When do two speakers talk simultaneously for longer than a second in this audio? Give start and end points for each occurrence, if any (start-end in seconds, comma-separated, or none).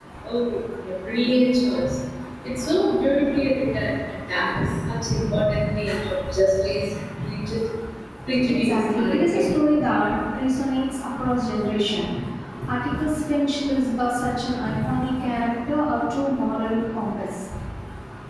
8.5-9.9